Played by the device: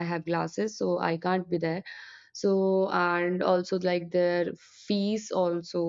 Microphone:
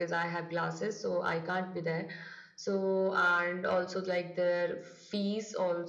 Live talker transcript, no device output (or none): none